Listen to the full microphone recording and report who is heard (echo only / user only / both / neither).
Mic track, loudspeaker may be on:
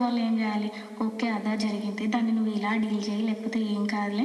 echo only